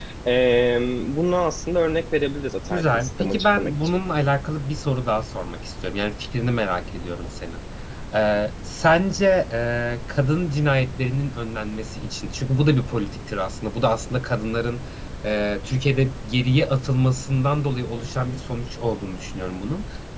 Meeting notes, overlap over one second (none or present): present